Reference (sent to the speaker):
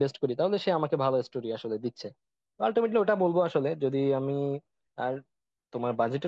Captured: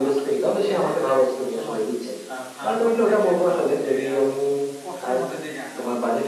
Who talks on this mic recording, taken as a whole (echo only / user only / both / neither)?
both